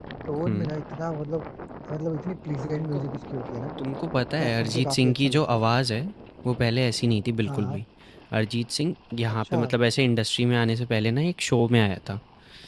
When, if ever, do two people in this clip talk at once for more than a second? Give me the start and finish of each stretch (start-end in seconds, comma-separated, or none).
4.4-5.7